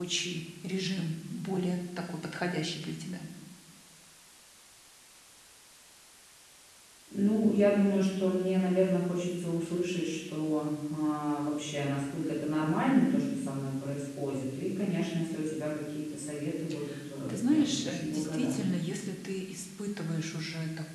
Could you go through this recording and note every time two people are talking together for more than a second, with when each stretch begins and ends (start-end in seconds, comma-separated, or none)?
17.3-18.7